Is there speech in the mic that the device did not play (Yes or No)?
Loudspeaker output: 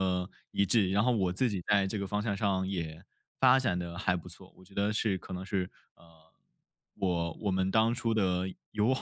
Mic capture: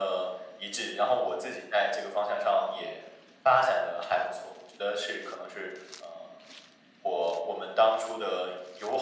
No